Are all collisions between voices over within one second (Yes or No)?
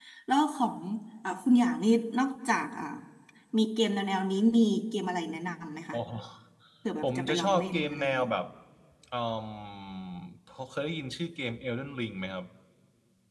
No